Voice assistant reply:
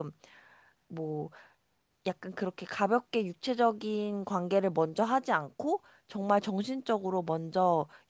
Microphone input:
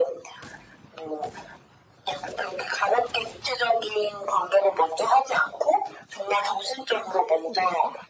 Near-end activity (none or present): present